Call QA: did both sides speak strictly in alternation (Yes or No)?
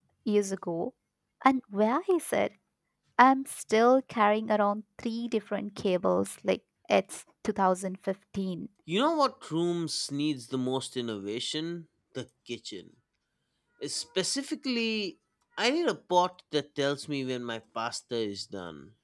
Yes